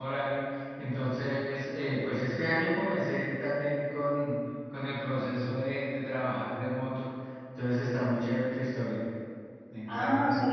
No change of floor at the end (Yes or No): No